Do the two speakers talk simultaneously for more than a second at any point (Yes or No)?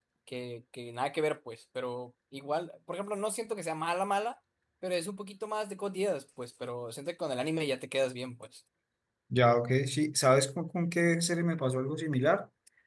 No